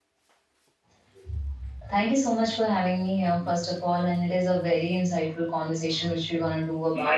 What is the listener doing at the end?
listening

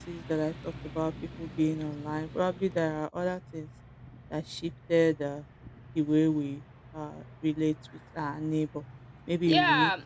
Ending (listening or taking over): taking over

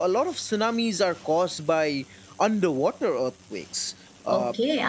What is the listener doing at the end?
taking over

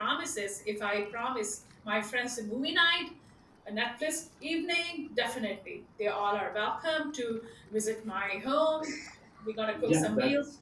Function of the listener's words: taking over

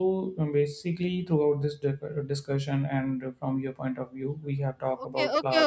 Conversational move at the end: taking over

